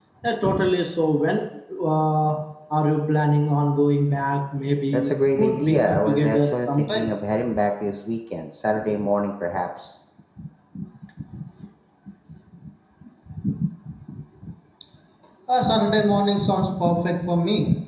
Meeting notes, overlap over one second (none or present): present